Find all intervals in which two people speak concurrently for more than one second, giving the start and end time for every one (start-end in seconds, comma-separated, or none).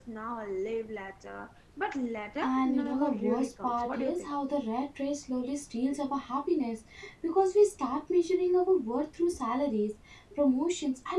2.4-4.3